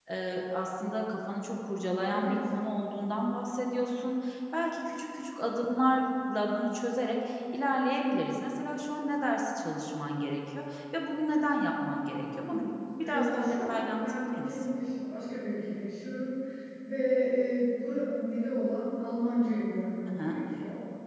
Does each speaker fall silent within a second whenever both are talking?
No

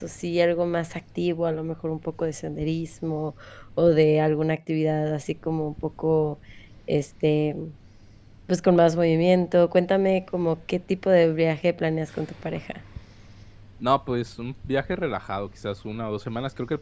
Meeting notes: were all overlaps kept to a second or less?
Yes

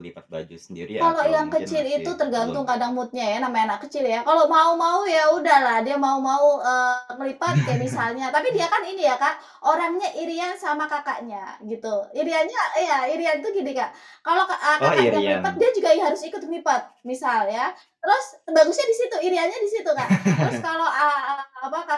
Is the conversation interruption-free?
No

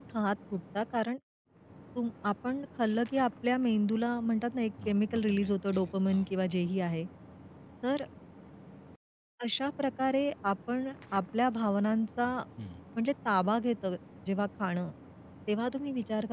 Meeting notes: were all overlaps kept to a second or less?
No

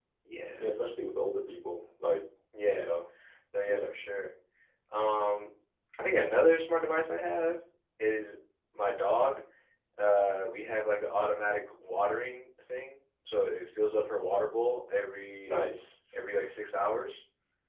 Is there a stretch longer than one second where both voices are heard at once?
No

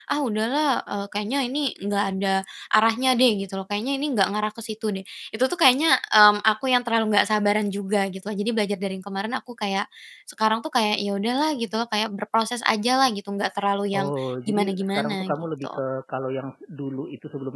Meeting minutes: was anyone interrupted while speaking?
Yes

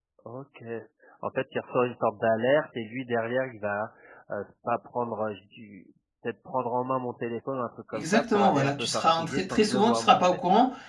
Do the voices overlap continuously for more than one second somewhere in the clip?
Yes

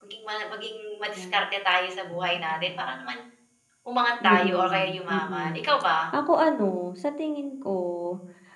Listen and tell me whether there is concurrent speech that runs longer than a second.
Yes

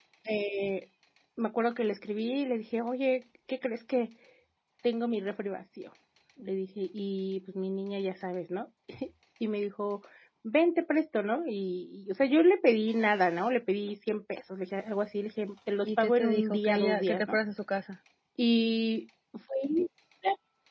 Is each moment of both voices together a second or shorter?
No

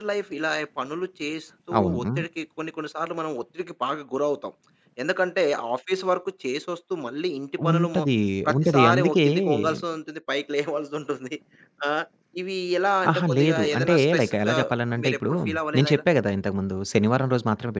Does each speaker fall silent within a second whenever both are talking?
No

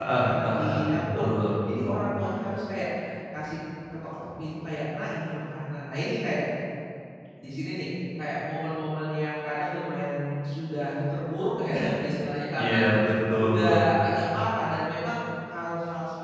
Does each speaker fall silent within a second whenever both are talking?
No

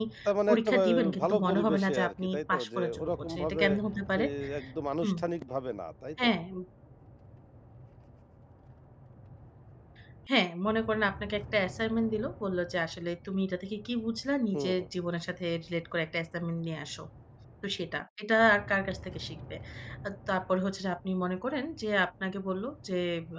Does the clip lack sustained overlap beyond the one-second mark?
No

